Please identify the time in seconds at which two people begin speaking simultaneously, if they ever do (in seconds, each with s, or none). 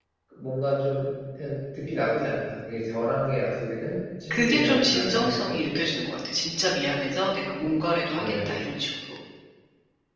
4.3 s